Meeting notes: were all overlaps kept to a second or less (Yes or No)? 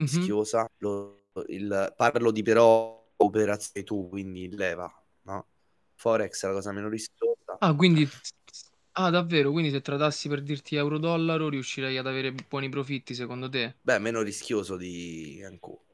Yes